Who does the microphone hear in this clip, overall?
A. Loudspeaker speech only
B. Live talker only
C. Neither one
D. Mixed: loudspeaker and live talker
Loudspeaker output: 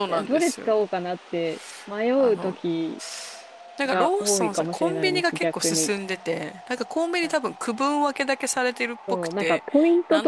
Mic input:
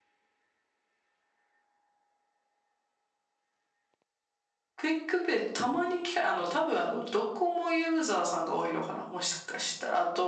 B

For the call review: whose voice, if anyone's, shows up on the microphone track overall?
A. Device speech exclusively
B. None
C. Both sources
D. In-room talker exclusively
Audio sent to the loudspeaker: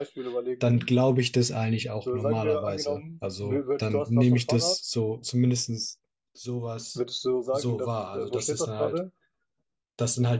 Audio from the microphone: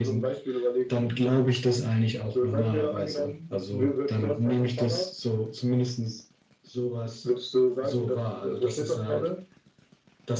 A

